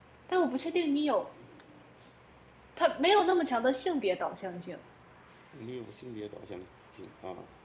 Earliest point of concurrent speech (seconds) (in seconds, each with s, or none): none